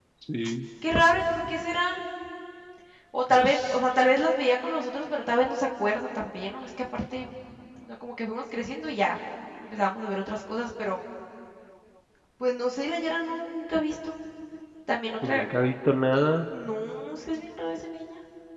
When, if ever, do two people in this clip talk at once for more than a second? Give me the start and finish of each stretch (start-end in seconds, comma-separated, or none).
none